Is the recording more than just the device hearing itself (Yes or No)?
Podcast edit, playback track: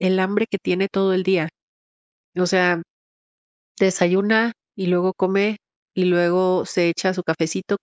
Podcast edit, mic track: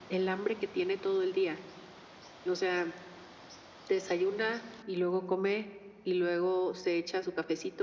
No